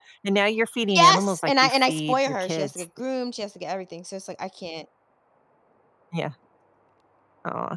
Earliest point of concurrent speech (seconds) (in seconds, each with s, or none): 0.9 s